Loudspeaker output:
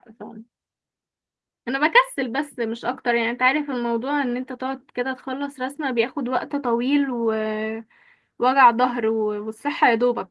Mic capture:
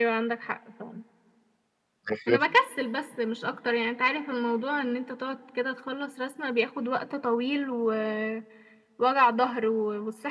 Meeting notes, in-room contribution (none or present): present